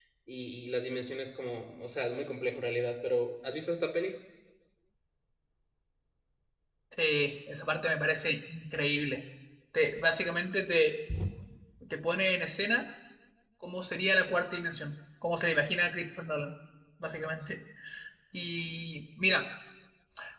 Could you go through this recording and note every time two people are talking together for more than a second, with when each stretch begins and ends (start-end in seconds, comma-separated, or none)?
none